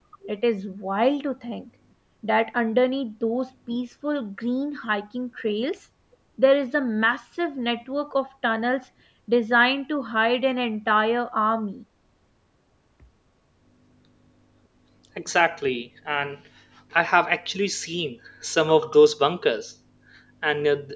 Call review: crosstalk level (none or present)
none